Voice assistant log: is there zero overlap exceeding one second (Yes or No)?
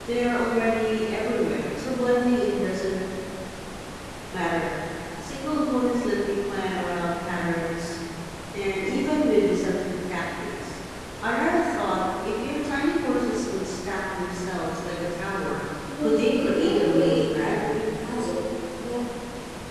No